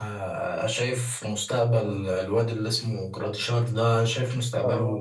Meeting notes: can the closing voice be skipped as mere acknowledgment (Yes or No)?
Yes